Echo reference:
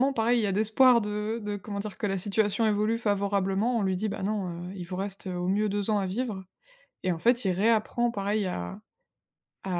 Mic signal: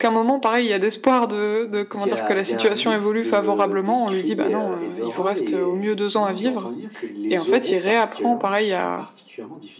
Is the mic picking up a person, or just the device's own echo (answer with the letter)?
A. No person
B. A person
B